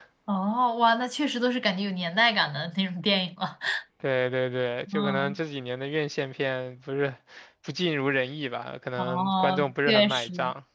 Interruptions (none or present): present